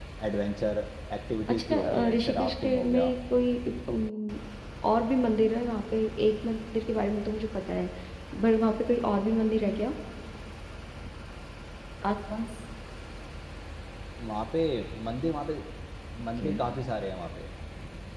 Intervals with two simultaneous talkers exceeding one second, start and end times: 1.5-3.1

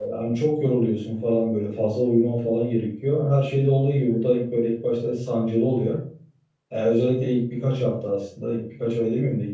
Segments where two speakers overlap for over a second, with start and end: none

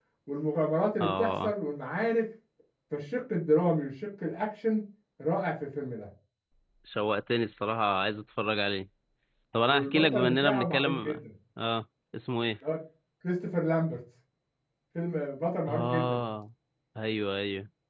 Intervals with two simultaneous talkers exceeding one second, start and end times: 9.7-11.2

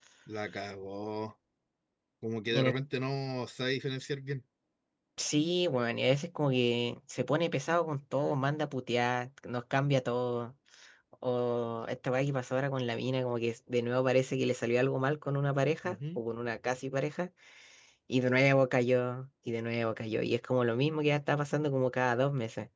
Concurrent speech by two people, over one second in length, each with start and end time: none

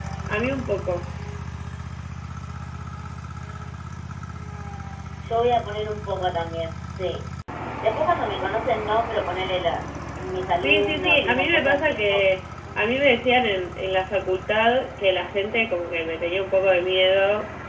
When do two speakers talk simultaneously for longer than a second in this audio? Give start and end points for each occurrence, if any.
10.6-12.3

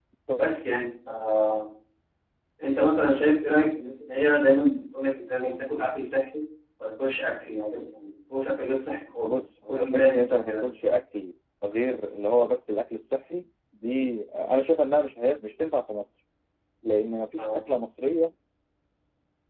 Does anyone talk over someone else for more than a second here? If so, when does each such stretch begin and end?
9.2-10.7

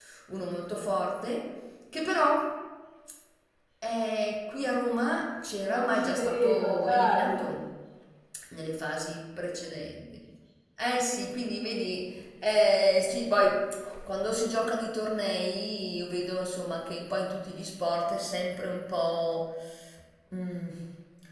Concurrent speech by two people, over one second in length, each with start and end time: 5.7-7.4

